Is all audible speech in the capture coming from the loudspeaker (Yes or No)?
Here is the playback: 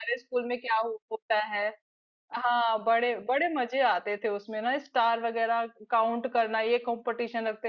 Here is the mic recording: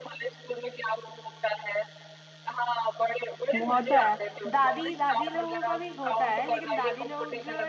No